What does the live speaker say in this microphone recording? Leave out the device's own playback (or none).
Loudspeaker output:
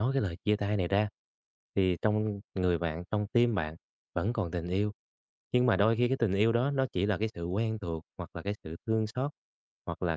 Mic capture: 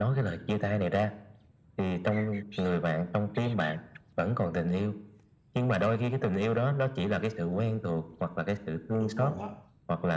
Đúng rồi đó.